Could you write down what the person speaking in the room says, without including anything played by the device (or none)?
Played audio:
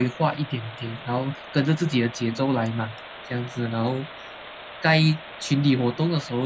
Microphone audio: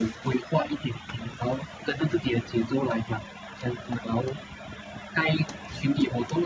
none